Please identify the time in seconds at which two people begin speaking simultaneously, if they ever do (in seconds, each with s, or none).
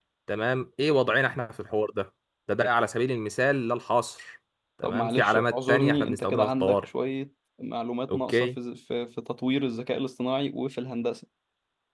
4.8 s